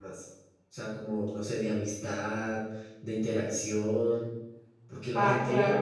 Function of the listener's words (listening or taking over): listening